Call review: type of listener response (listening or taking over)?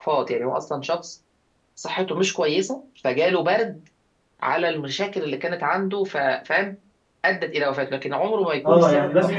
taking over